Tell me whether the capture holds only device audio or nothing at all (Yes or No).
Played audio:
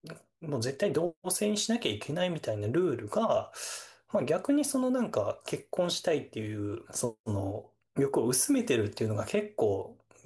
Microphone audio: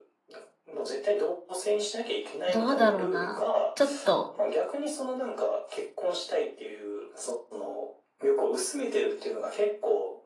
No